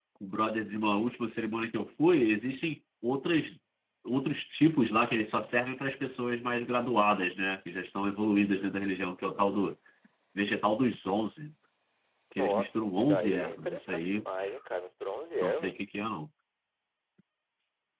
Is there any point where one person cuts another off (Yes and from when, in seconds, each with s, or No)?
Yes, from 12.4 s